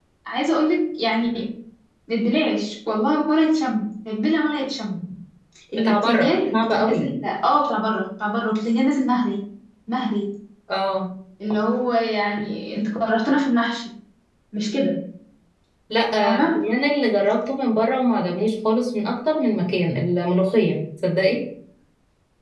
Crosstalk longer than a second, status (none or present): present